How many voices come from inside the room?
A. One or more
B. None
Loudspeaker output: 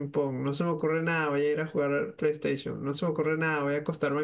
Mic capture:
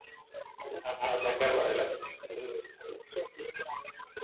A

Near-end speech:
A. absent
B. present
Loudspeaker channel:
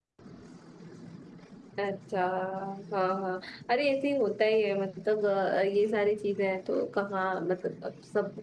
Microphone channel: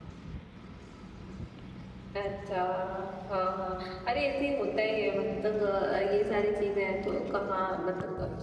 A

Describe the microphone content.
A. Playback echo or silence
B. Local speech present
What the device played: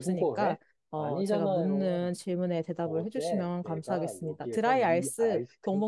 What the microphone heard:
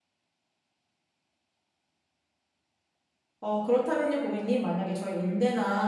B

